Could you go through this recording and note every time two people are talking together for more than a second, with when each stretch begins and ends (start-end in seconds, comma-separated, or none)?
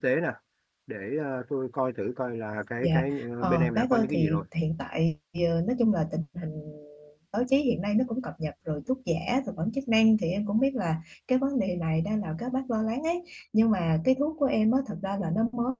2.8-4.4